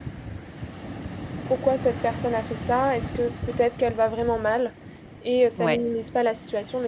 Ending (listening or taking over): listening